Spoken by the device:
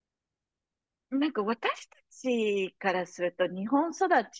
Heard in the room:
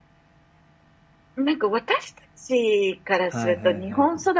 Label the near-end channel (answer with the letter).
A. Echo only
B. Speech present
B